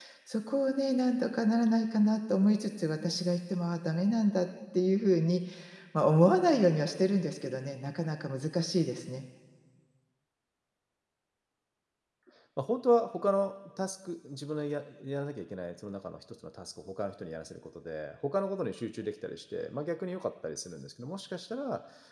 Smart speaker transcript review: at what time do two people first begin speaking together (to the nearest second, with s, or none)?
none